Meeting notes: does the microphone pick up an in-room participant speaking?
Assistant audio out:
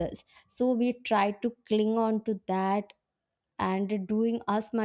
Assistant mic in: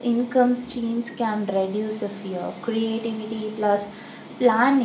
Yes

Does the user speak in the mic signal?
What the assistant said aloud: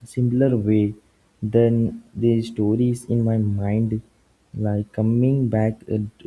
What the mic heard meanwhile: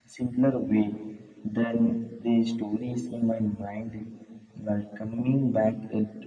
No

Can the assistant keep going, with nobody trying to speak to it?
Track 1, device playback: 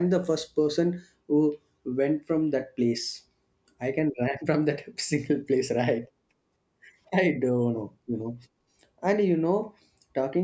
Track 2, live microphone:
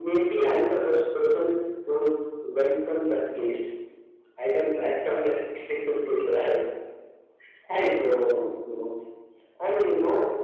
Yes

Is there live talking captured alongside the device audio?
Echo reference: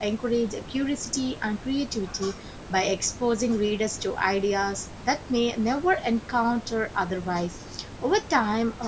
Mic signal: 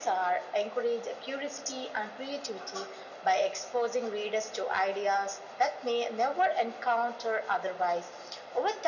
No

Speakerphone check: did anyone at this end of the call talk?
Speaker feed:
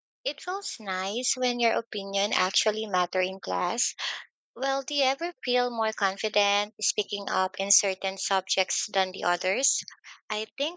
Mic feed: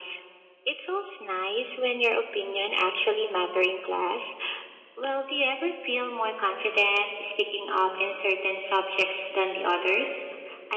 No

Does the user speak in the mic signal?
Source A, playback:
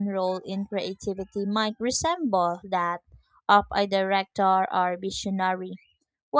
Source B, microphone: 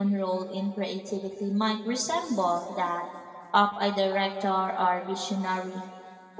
No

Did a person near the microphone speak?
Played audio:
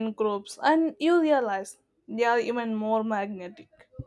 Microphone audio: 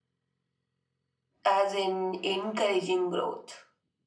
Yes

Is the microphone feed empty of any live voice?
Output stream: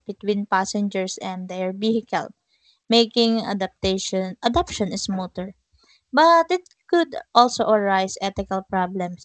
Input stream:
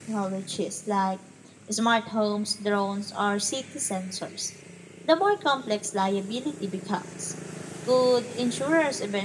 No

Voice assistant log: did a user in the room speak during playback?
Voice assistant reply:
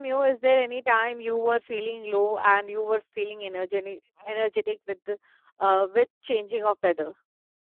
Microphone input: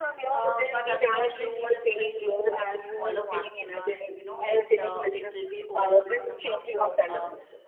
Yes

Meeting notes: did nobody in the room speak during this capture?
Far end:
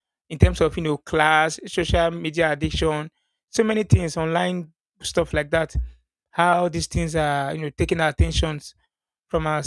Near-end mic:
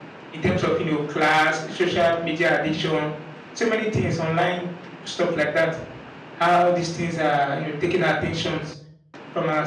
Yes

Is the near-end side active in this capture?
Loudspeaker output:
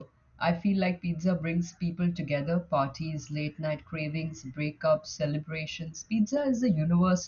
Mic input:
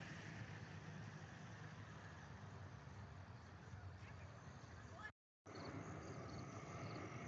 No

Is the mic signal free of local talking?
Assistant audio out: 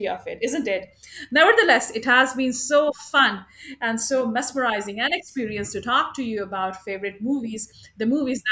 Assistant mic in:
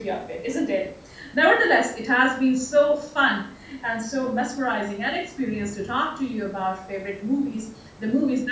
Yes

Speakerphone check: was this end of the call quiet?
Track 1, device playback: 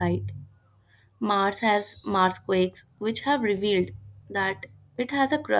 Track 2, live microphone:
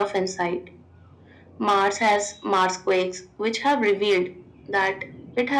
Yes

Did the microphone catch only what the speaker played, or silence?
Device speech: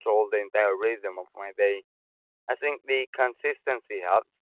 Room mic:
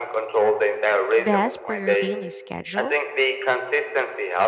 No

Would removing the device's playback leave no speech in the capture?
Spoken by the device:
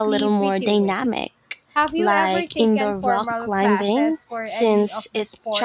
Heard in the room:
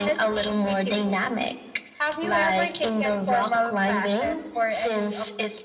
Yes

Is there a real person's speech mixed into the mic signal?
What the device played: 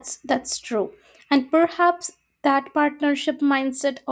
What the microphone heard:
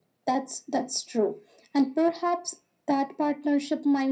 No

